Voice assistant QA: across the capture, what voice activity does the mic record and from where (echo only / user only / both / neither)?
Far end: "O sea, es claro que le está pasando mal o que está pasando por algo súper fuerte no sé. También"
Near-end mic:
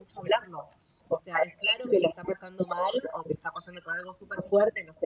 echo only